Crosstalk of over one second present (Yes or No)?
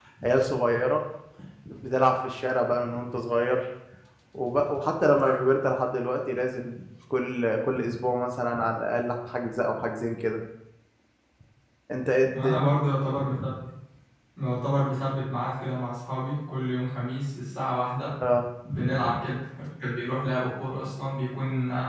No